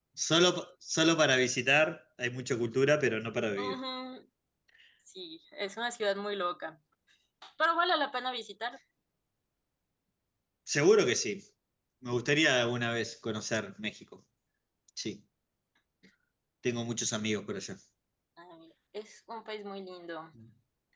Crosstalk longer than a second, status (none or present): none